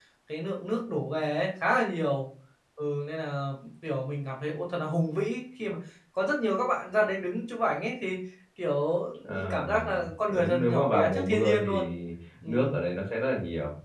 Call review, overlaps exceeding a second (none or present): present